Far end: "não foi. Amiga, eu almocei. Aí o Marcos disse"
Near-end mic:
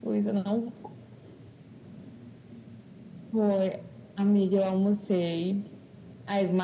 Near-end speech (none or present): none